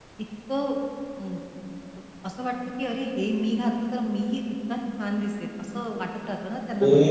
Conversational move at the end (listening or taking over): taking over